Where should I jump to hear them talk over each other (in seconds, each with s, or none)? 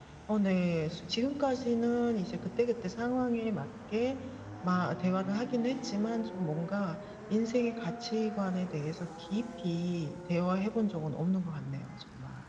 none